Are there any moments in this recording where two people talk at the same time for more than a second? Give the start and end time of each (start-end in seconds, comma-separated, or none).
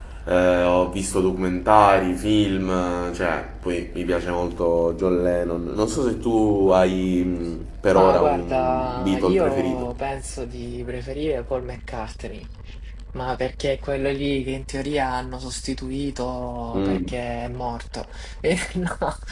8.0-9.9